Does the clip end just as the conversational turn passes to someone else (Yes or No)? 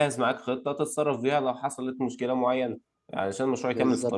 No